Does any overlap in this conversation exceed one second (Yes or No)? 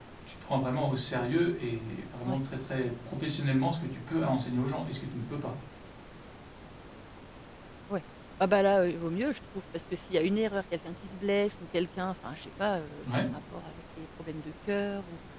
No